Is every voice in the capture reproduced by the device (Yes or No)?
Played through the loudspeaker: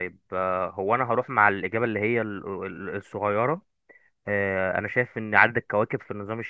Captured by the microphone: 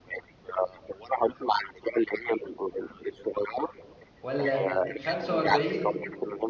No